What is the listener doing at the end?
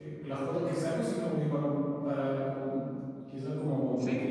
listening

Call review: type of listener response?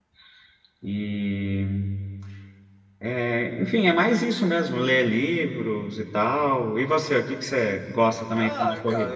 taking over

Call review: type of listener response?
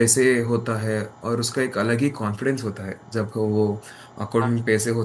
listening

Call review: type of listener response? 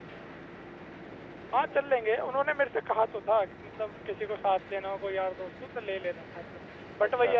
listening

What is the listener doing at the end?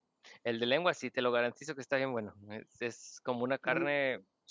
listening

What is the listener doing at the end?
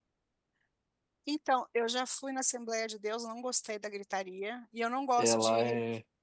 listening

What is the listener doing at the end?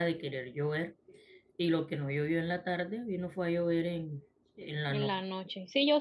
taking over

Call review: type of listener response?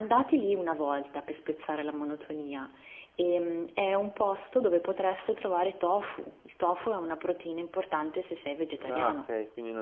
taking over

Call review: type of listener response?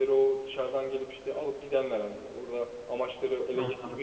listening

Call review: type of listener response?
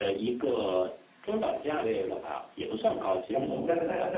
taking over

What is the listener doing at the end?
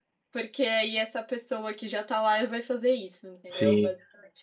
taking over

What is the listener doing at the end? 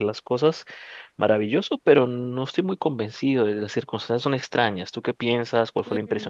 taking over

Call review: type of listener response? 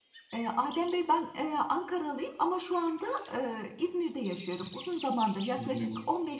listening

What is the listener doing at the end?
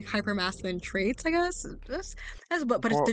listening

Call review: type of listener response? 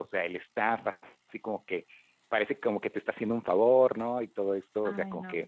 listening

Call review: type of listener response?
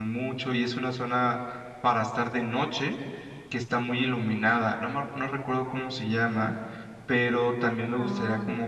listening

